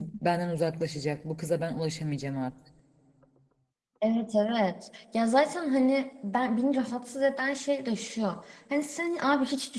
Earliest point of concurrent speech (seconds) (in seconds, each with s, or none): none